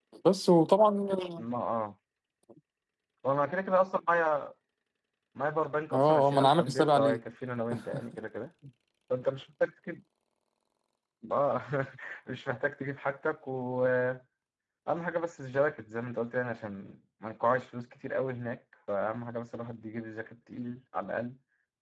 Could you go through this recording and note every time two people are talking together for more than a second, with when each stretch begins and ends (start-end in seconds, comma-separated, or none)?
5.9-7.2